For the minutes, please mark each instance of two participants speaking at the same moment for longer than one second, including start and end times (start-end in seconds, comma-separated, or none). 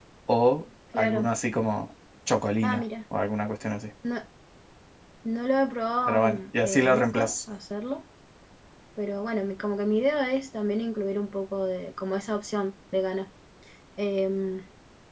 6.1-7.3